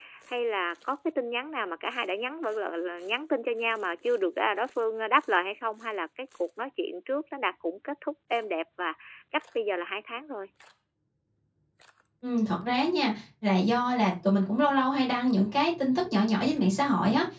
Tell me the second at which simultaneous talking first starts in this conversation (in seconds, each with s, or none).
none